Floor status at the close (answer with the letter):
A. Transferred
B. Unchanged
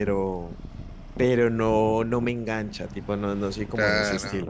A